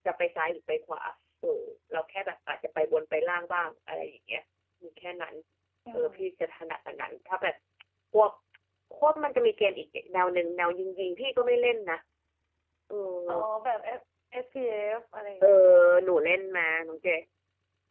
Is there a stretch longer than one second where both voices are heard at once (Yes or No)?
No